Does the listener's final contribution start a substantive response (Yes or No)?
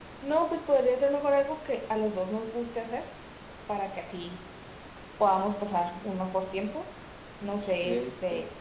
No